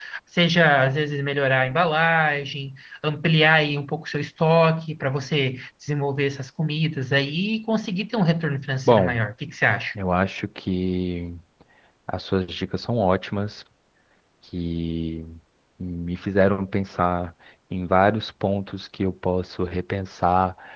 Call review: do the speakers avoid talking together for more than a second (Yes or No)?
Yes